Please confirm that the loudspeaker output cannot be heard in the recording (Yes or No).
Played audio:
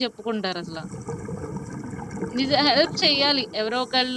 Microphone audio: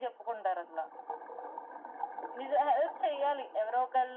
No